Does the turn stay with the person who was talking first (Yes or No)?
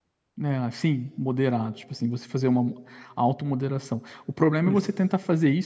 Yes